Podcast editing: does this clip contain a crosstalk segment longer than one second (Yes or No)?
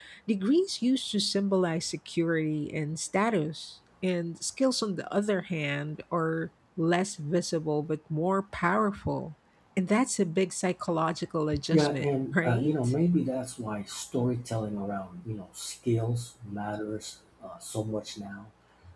Yes